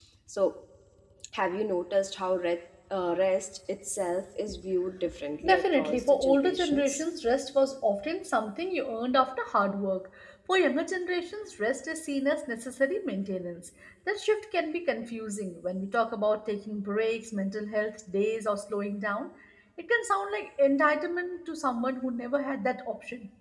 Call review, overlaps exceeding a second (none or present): present